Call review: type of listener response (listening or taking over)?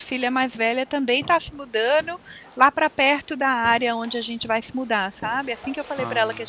listening